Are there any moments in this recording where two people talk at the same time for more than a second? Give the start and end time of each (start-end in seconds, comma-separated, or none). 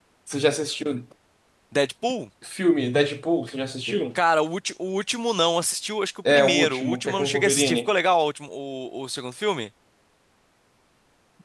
6.3-7.9